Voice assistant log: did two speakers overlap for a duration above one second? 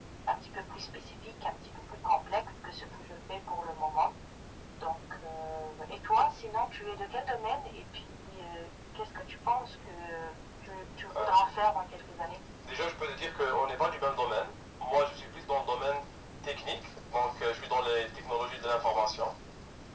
No

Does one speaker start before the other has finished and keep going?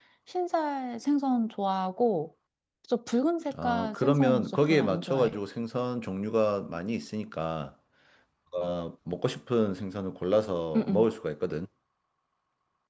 Yes, from 3.6 s

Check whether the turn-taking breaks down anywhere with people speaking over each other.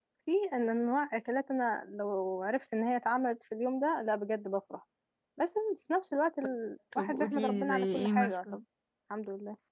Yes, from 7.0 s

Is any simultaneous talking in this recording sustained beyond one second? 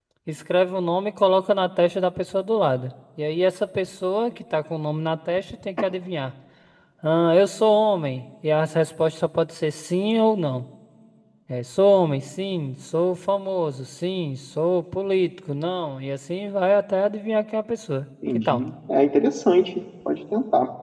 No

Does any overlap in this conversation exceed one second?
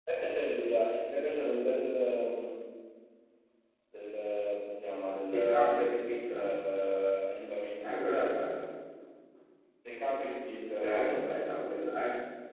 Yes, from 5.3 s

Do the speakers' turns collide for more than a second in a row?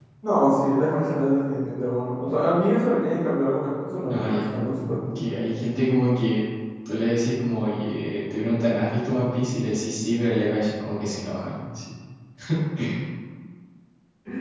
No

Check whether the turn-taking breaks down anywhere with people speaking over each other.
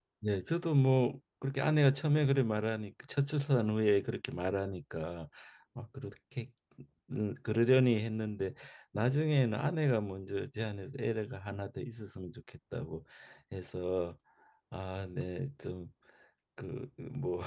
No

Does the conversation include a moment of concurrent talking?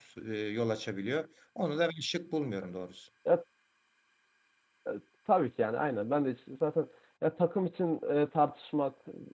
No

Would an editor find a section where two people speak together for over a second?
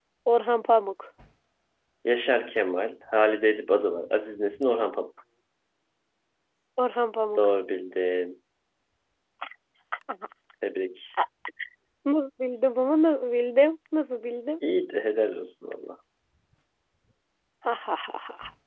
No

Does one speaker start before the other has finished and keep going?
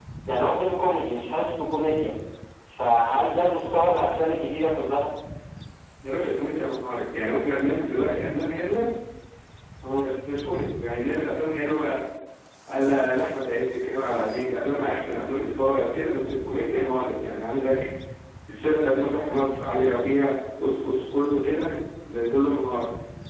No

